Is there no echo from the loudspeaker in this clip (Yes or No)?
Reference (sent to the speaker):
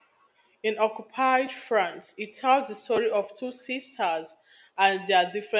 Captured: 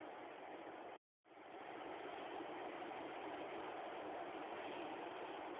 Yes